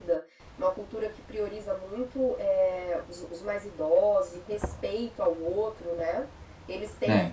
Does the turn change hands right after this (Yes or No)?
No